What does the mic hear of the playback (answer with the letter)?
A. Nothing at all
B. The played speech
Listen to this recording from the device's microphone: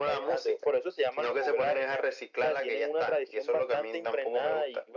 B